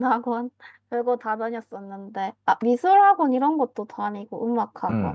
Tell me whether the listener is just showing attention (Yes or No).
No